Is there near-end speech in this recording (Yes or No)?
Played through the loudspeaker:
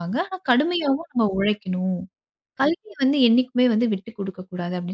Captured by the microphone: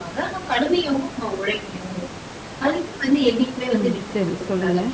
Yes